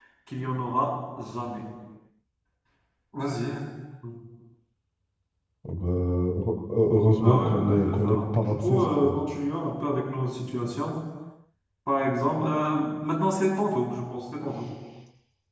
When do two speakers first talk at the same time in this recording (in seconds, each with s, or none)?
7.2 s